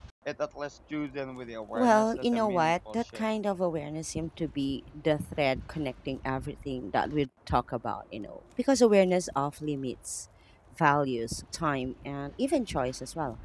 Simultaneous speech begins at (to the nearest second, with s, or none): 2 s